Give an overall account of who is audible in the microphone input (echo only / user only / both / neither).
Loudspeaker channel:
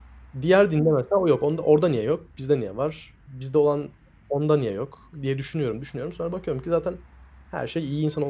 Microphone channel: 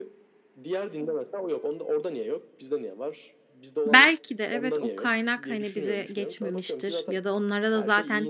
both